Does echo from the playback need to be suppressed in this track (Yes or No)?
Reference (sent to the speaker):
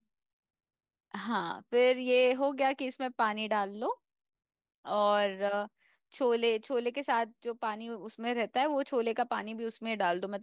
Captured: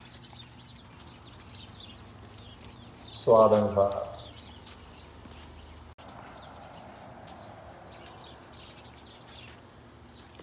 No